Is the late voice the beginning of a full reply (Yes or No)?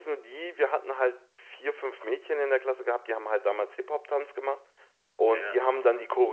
No